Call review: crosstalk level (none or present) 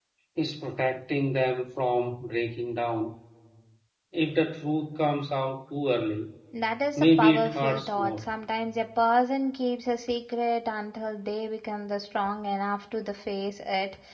present